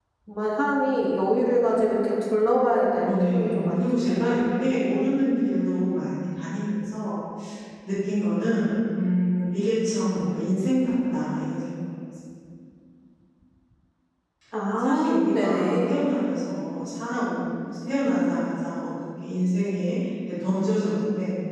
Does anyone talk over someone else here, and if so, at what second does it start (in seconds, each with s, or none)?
3.0 s